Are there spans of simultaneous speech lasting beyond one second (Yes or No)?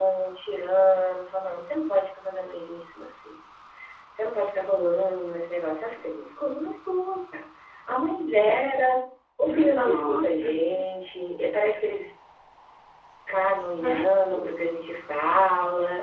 Yes